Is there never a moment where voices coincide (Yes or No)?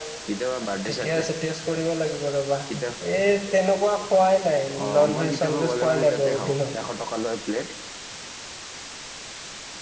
No